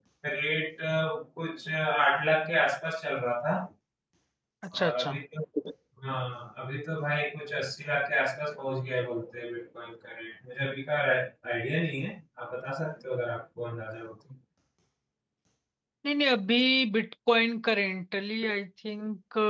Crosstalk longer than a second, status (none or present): none